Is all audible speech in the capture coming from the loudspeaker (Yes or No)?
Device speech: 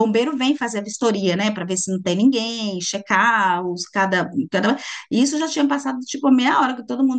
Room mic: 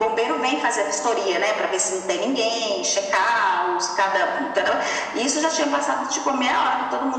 Yes